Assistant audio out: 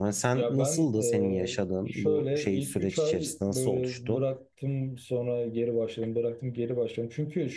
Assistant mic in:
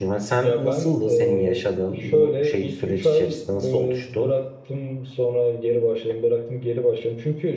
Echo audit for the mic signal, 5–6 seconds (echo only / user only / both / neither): echo only